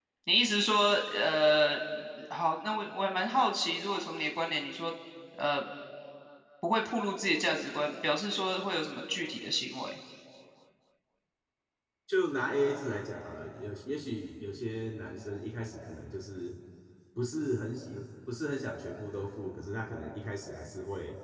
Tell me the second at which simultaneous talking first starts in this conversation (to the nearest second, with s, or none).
none